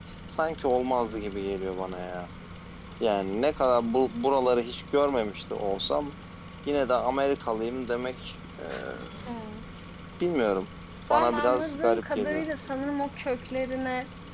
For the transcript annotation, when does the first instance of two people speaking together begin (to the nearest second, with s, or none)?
11 s